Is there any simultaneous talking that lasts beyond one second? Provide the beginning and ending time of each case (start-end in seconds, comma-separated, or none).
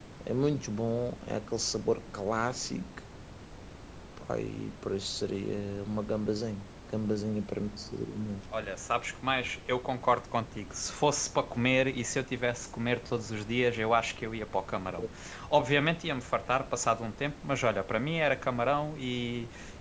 none